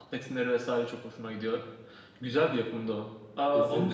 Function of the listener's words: listening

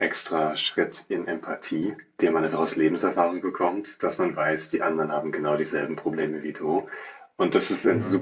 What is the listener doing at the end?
listening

